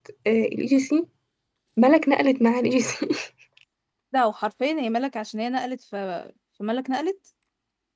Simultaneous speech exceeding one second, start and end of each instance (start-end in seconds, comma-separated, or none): none